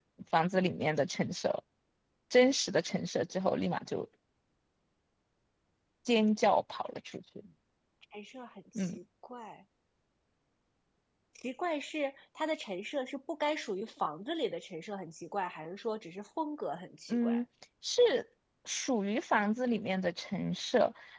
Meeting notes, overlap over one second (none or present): none